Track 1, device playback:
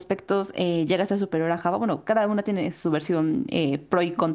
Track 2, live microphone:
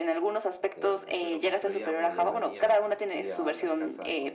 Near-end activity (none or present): present